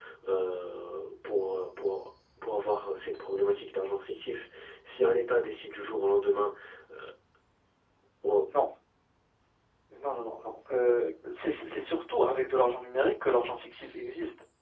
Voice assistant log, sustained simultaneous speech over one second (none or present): none